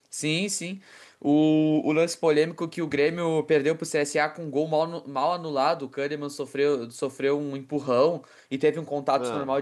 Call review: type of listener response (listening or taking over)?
listening